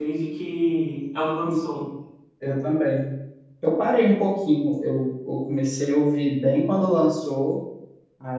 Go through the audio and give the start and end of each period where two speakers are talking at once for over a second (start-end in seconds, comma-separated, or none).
none